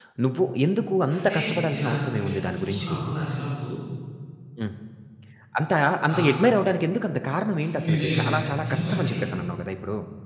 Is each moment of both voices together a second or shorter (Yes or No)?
No